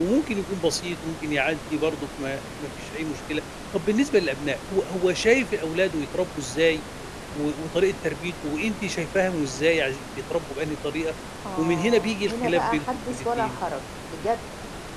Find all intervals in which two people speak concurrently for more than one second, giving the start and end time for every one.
11.6-13.6

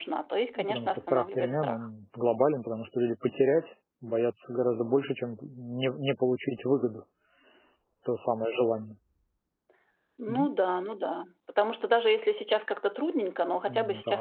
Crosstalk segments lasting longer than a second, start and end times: 0.6-1.8

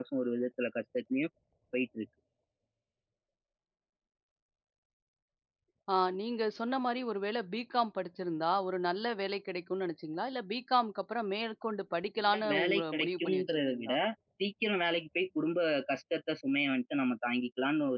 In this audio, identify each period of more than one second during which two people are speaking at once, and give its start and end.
12.3-13.9

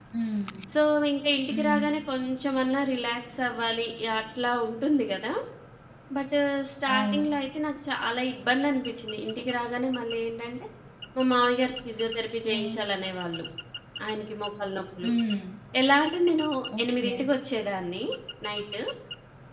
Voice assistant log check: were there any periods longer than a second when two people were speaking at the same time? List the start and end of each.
none

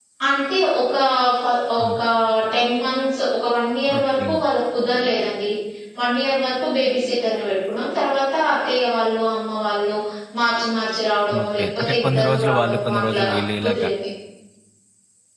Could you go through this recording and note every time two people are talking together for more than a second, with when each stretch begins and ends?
11.4-13.2

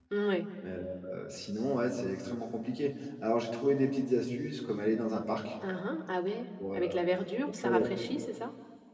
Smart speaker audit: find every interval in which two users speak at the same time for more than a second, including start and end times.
none

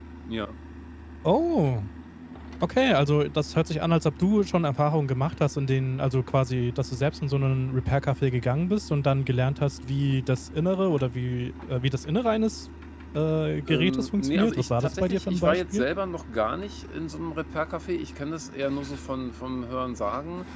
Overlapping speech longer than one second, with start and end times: 13.7-15.8

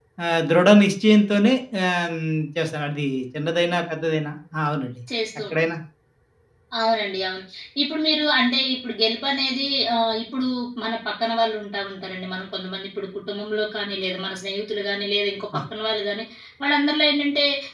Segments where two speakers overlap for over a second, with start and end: none

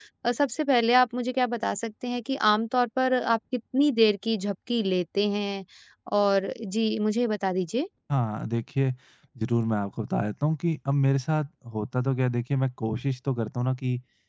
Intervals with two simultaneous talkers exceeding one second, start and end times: none

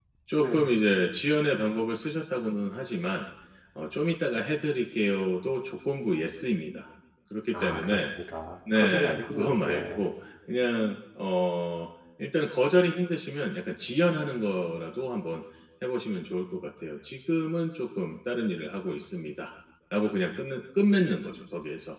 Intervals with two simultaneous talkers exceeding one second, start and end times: 8.8-10.0

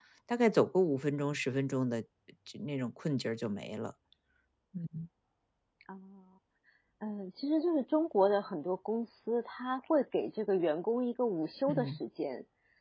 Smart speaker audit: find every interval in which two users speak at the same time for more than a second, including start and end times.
none

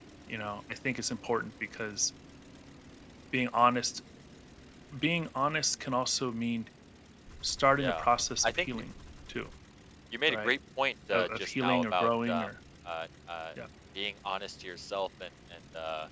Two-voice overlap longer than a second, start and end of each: 11.1-12.5

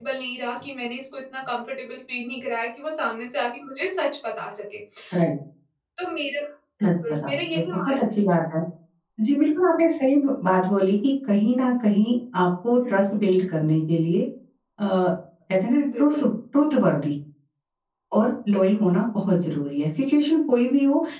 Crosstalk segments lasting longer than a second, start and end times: 6.8-8.1

